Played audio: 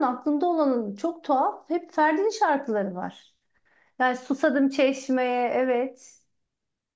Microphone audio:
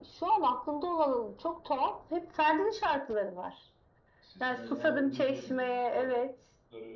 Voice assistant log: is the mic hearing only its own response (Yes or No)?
No